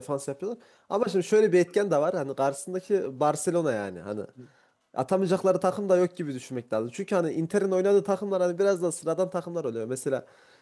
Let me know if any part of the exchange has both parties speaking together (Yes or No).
No